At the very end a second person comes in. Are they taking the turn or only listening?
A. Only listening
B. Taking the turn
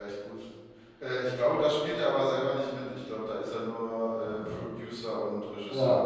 B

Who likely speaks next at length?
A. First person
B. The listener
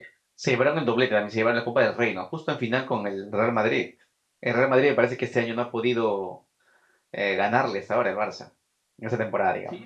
B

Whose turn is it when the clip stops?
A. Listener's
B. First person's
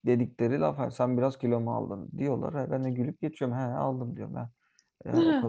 B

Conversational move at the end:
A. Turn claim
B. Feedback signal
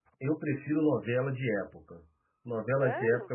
B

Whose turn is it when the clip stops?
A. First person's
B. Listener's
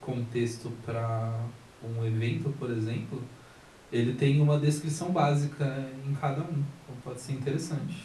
B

